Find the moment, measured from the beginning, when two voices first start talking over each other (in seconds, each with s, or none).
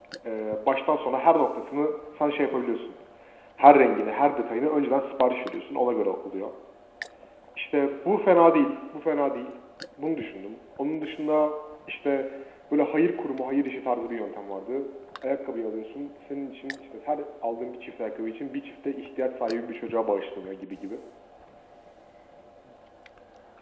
none